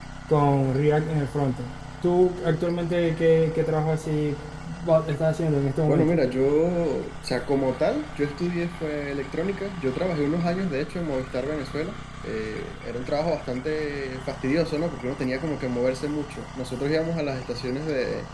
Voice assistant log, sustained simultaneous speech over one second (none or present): none